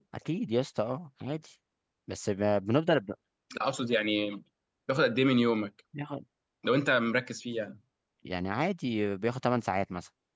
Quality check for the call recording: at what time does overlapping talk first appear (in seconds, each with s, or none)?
none